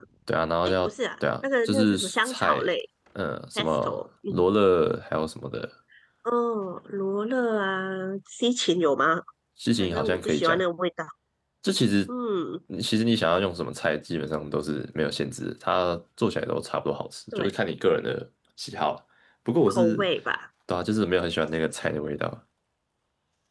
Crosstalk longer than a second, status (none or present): present